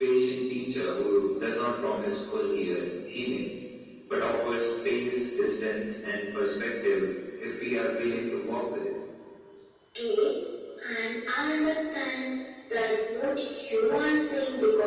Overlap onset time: none

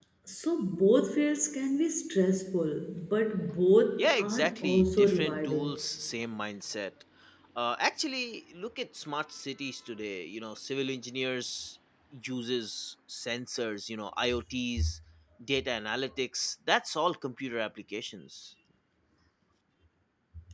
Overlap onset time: 4 s

